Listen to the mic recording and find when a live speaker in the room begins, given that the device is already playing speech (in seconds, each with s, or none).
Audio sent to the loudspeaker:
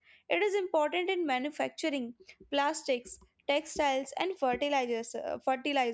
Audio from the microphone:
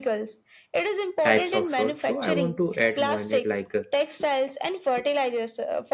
1.2 s